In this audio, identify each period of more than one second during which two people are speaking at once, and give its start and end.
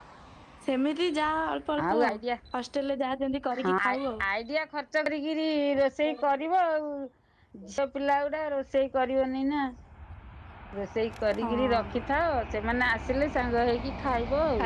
none

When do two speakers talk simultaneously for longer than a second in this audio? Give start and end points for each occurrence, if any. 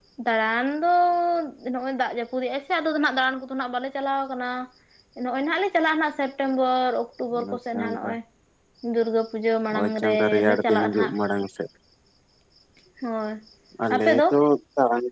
9.8-11.1

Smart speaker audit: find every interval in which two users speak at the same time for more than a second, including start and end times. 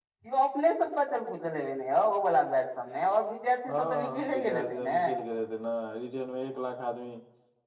3.7-5.0

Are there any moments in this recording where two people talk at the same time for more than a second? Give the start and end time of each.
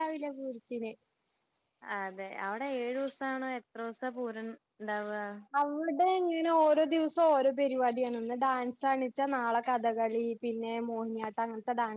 none

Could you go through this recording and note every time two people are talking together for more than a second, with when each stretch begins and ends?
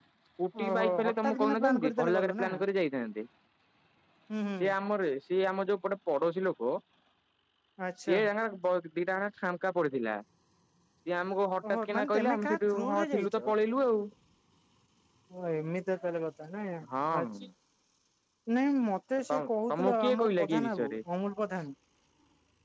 0.6-2.5, 11.7-13.5, 19.3-21.0

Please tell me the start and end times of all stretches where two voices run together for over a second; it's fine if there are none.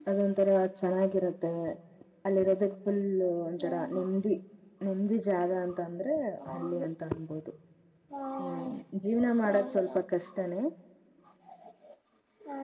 none

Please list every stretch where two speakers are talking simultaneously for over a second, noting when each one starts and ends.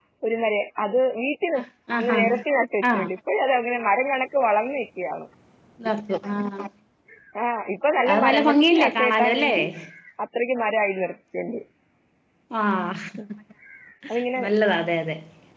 8.1-9.5

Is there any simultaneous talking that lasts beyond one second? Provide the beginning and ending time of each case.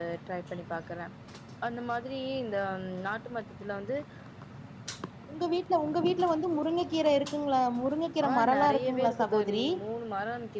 8.3-9.6

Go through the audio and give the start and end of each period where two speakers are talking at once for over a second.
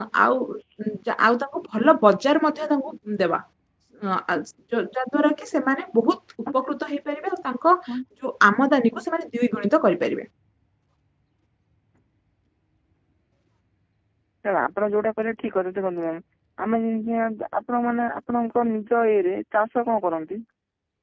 none

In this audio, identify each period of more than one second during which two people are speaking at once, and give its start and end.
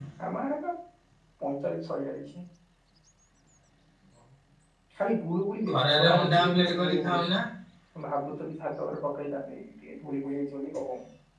5.7-7.2

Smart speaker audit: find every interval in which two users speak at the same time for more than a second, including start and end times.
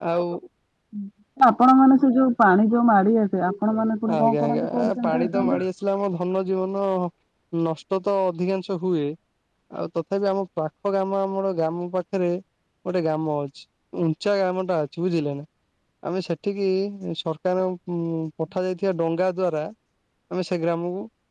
4.2-5.6

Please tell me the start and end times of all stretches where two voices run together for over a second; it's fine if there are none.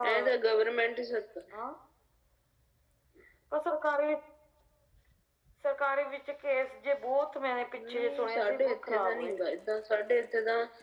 7.9-9.3

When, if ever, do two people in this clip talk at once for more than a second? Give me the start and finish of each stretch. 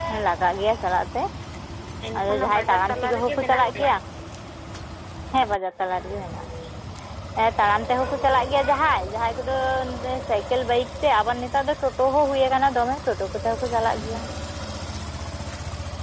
2.2-3.9

